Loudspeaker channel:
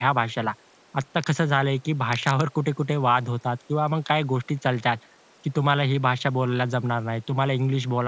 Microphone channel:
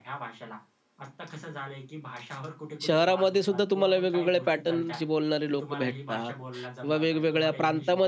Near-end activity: present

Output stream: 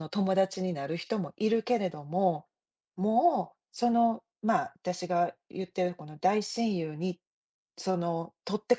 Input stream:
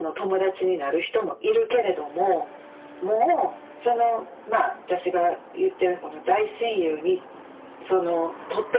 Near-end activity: none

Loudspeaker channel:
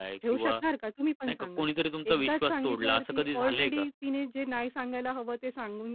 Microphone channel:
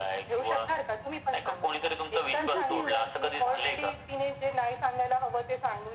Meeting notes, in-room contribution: present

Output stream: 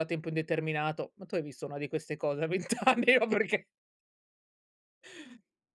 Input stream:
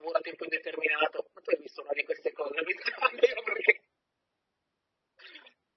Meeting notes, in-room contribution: none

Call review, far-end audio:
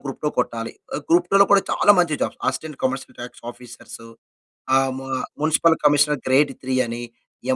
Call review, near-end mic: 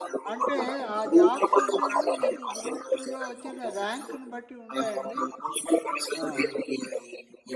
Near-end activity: present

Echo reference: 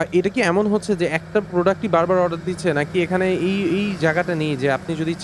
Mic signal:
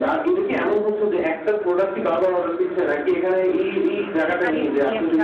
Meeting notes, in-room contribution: present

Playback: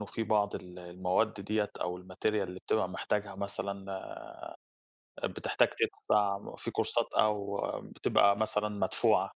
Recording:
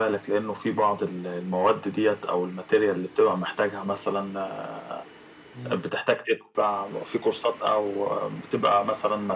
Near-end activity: present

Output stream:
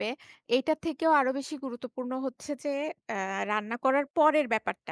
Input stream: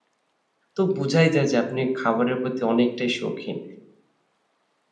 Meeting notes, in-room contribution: present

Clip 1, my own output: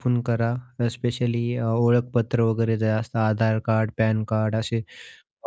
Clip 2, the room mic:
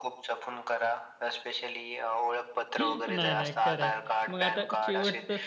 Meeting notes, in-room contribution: present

